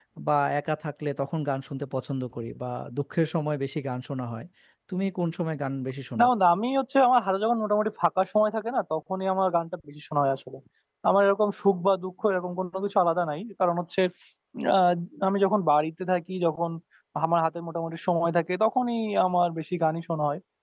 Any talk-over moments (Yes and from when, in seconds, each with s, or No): No